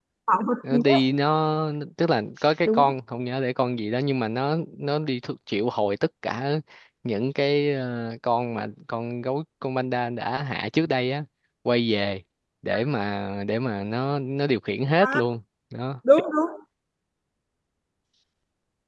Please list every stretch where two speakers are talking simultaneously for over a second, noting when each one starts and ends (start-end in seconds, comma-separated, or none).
none